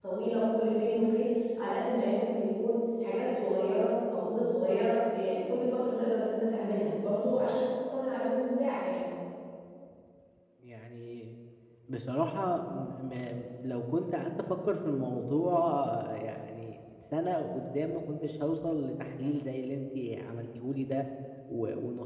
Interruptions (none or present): none